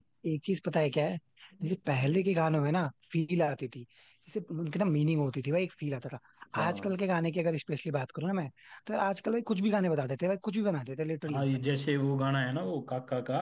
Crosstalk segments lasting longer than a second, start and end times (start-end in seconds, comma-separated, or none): none